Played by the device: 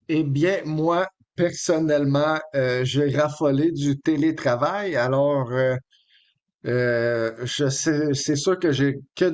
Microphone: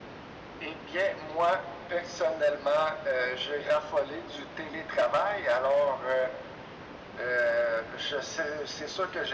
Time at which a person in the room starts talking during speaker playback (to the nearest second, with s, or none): none